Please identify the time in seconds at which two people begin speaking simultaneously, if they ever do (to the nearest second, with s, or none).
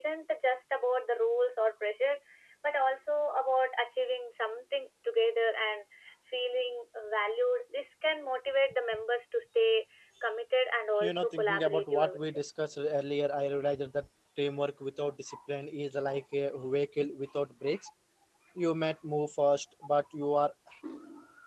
11 s